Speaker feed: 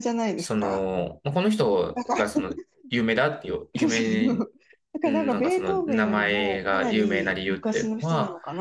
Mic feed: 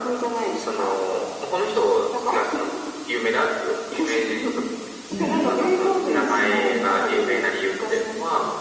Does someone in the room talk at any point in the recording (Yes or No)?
Yes